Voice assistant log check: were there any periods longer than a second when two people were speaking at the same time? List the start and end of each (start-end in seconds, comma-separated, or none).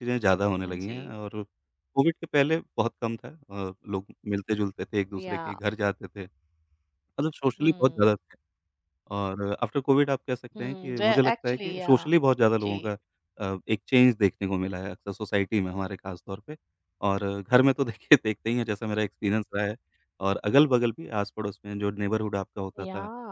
10.6-11.9